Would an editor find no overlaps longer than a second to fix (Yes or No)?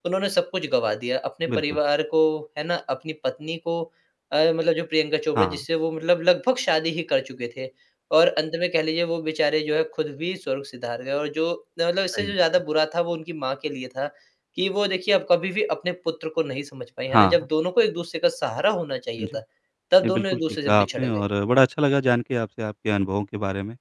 No